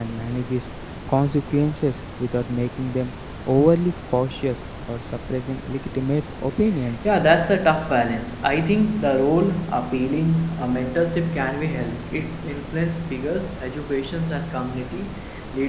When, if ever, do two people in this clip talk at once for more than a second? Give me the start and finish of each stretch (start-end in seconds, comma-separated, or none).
none